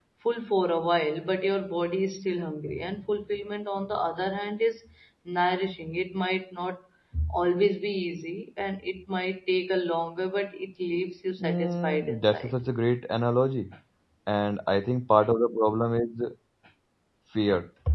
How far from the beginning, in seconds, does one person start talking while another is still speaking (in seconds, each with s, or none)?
11.4 s